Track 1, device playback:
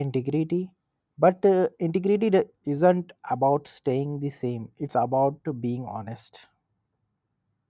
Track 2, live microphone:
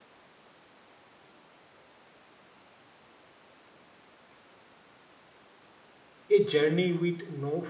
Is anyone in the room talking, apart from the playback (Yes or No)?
Yes